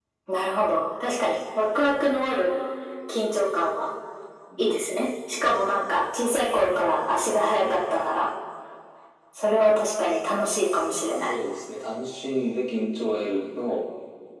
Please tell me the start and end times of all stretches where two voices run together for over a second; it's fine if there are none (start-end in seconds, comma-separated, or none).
none